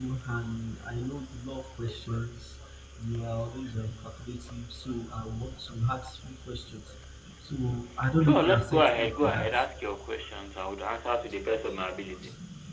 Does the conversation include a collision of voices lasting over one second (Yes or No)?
Yes